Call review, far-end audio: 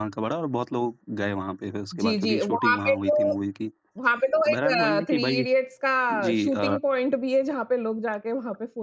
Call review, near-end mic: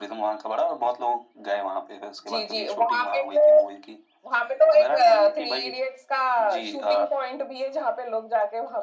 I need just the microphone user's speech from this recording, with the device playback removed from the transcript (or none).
none